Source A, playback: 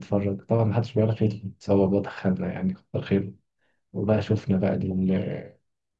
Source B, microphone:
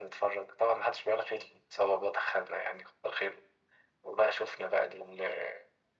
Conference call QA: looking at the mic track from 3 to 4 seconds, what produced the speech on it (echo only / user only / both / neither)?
echo only